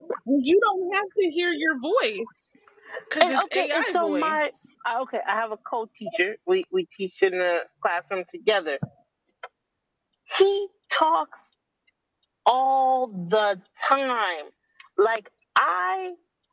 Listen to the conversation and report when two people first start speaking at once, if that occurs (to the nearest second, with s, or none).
3 s